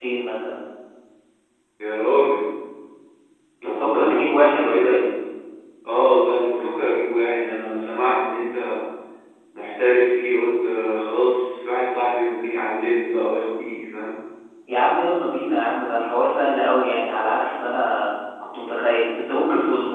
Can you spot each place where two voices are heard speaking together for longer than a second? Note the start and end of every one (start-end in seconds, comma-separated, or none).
3.6-5.0